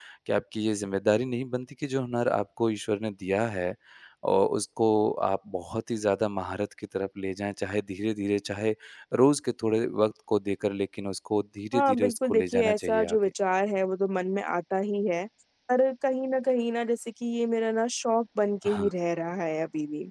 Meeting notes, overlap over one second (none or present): present